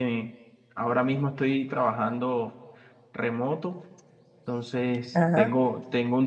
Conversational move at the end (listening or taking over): listening